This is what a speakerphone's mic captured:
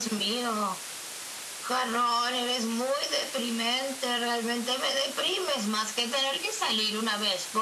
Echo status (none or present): present